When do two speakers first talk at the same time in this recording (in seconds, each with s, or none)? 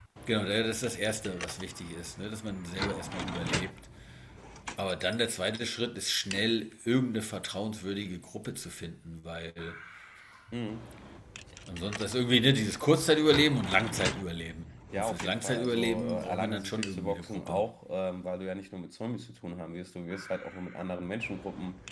14.9 s